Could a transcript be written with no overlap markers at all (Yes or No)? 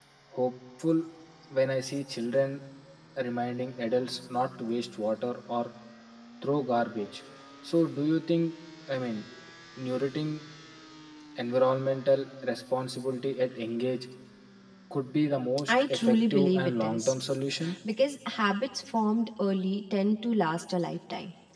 No